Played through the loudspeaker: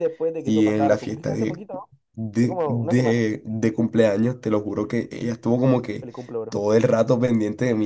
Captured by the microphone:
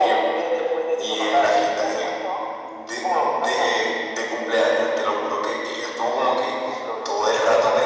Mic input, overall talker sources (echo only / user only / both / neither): echo only